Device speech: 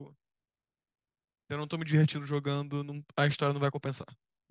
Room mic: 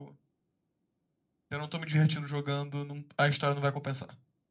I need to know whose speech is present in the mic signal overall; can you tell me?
echo only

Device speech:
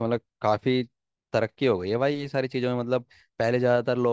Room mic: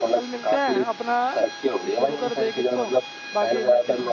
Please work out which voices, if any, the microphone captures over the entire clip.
both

